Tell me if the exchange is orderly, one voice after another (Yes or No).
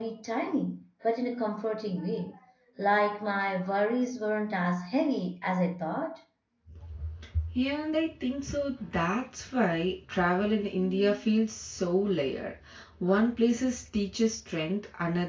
Yes